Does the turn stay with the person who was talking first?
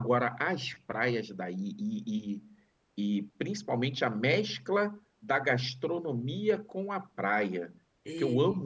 Yes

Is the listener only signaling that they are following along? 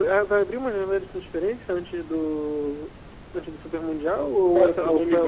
No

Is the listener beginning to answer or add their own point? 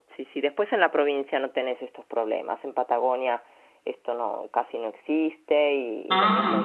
No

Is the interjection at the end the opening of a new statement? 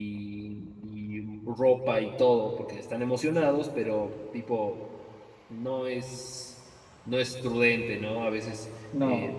No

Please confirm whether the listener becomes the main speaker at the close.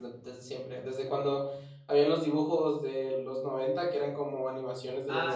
Yes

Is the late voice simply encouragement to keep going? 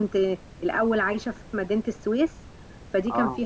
Yes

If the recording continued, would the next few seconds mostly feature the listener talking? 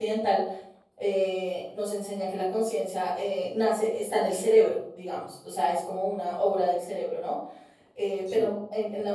No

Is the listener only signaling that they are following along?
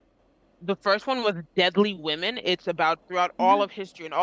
Yes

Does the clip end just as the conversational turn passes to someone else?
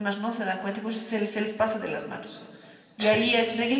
No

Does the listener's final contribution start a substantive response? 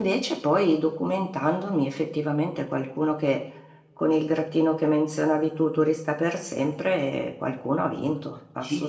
Yes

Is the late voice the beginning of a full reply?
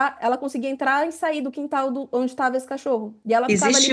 Yes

